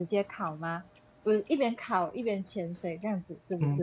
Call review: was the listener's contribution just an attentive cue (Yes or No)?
No